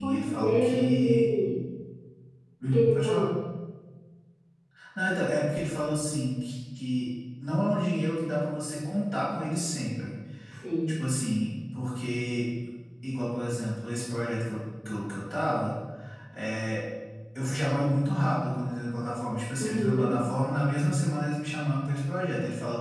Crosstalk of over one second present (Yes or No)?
Yes